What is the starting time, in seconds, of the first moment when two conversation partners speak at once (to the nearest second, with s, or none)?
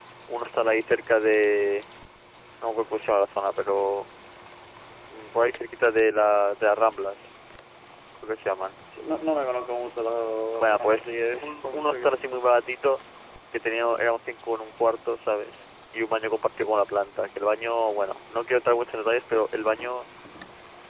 11 s